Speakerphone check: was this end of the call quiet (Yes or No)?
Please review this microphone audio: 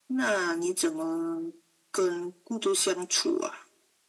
Yes